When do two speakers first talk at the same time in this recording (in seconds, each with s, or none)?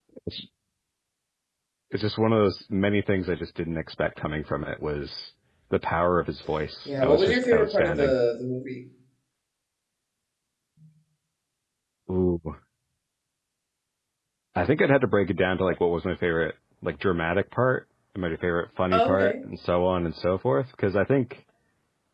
6.8 s